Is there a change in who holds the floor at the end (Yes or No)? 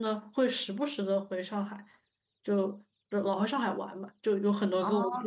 No